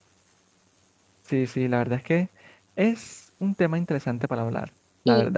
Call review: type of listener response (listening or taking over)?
taking over